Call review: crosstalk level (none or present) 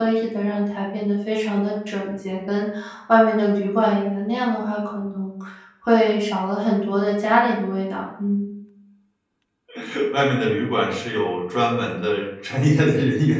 none